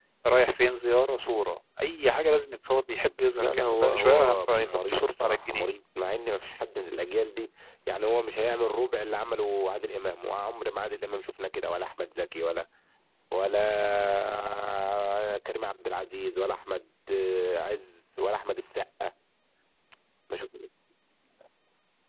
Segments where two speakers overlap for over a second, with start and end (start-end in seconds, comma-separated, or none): 3.4-5.7